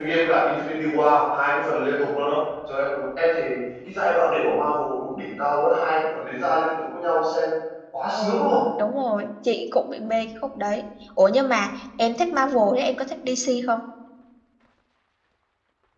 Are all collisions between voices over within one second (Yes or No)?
Yes